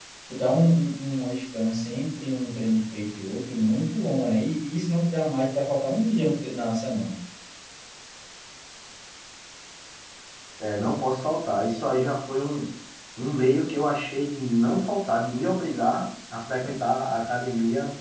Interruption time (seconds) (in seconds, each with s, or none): none